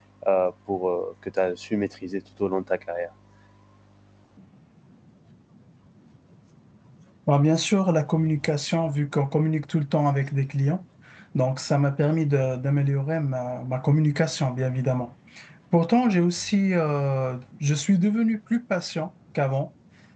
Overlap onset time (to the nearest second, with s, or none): none